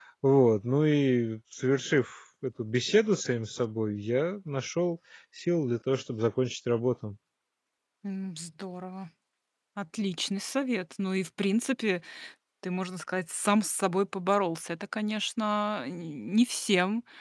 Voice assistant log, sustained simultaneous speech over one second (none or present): none